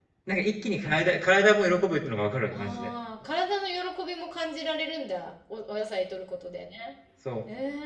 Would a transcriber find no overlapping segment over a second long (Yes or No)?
Yes